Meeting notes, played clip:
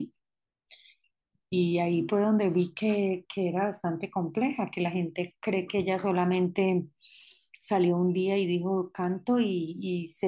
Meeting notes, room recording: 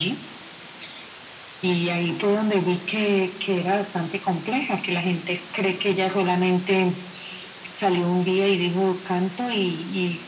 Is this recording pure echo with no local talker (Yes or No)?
Yes